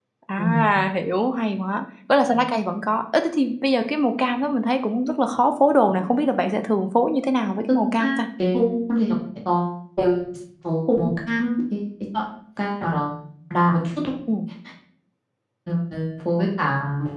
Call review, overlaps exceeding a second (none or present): none